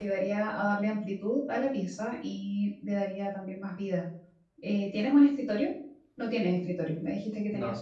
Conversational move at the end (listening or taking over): listening